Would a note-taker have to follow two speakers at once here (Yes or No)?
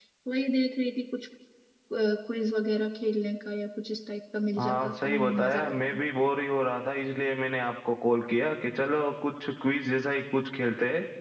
Yes